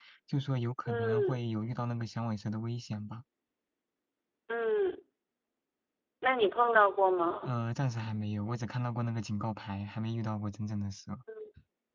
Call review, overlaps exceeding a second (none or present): none